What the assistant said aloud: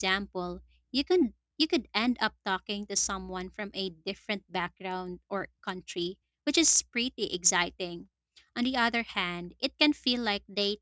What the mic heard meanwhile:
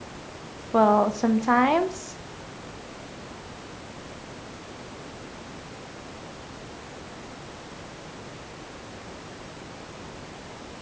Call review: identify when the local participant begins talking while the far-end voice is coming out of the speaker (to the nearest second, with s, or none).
1 s